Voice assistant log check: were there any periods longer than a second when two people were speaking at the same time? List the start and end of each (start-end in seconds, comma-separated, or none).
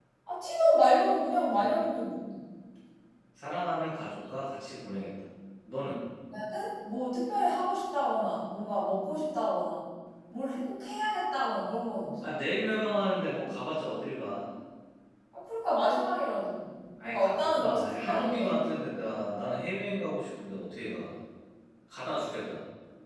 17.0-18.6